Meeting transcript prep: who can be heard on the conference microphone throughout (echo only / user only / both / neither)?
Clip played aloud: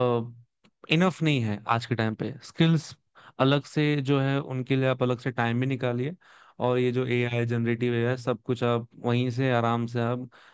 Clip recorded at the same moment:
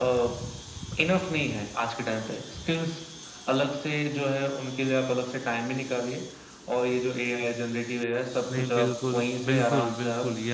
both